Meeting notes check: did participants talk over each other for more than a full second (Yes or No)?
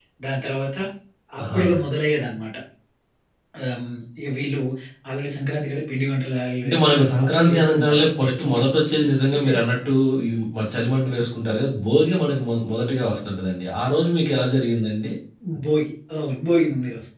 Yes